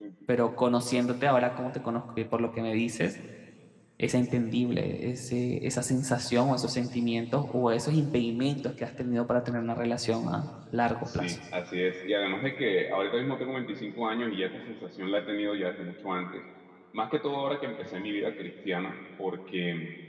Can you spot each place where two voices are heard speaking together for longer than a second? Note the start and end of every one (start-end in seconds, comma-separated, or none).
none